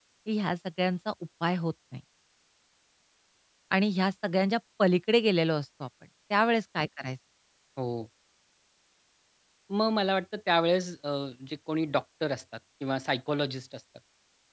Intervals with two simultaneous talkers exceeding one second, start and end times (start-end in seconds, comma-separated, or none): none